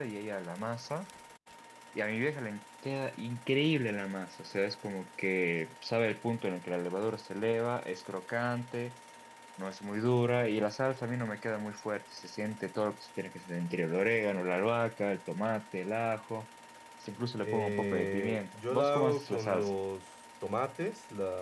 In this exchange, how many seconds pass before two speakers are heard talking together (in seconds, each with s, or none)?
17.4 s